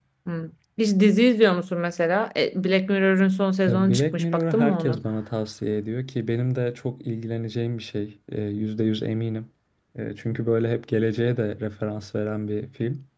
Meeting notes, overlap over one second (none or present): present